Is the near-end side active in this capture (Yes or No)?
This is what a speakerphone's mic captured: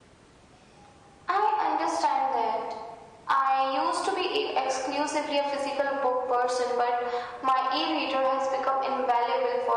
No